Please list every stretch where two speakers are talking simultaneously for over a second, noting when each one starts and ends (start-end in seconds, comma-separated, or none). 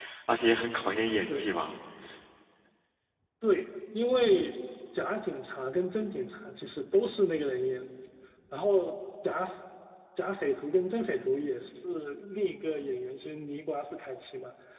none